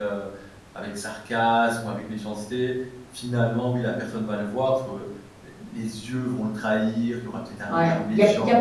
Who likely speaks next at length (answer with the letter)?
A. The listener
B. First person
A